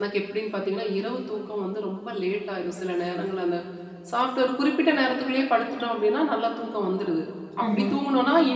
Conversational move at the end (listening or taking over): listening